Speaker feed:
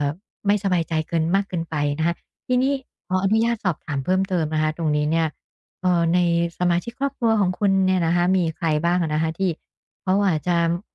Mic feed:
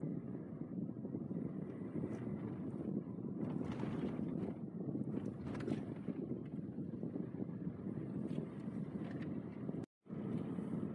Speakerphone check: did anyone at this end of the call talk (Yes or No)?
No